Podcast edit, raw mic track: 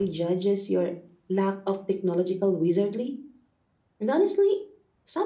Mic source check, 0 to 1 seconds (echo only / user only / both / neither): user only